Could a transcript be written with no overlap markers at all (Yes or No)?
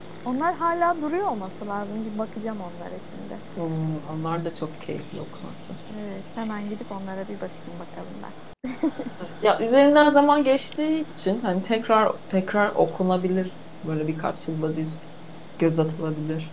Yes